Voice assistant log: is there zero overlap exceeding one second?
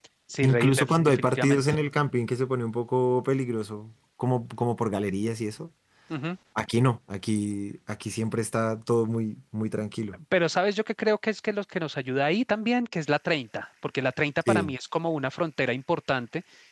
No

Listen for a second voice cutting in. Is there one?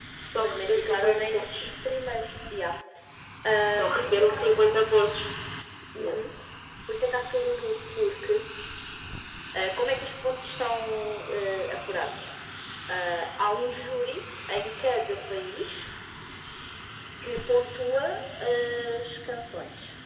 Yes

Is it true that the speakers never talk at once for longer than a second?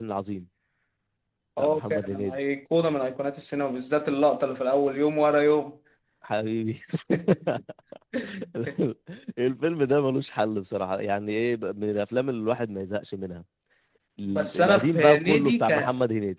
No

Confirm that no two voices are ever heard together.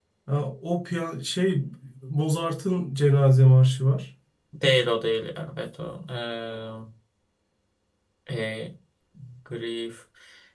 Yes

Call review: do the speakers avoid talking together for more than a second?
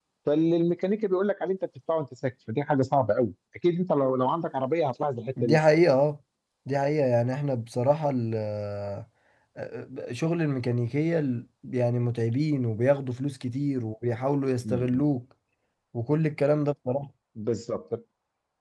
Yes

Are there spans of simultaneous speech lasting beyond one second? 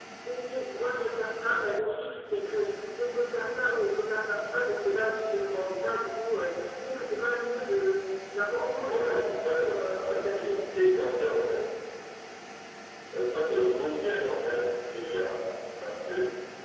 Yes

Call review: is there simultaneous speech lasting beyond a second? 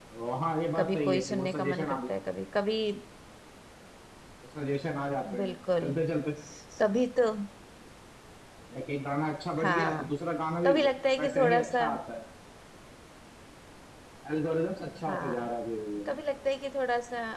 Yes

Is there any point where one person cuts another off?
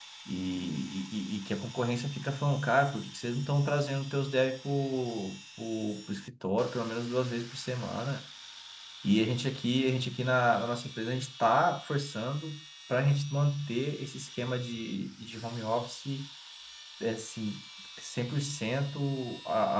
No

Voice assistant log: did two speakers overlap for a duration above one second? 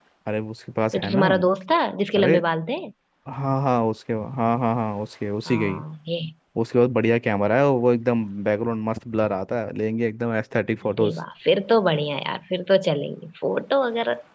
No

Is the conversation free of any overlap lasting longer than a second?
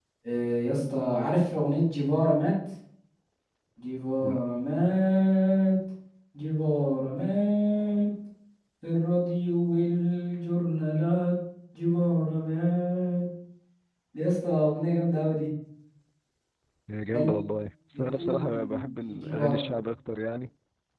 No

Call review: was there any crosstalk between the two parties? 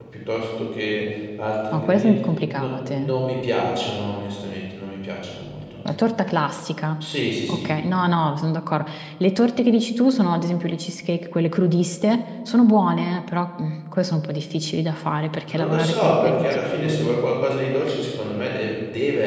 Yes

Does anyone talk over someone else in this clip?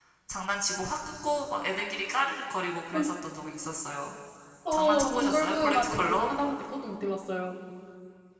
Yes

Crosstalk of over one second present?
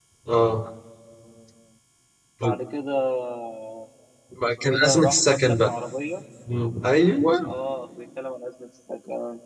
Yes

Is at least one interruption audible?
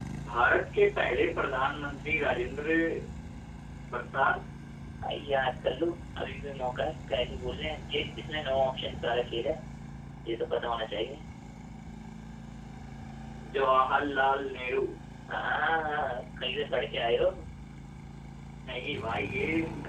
No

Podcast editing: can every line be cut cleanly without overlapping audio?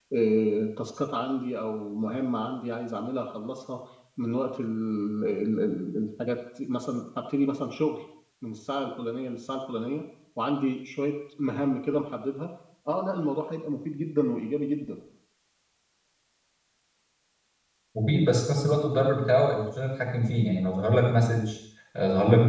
Yes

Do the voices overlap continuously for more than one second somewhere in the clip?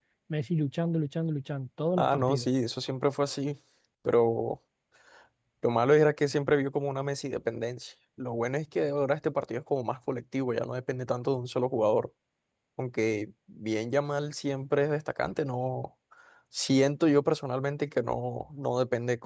No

